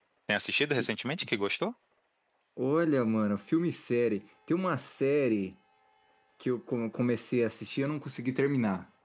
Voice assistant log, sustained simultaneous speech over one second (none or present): none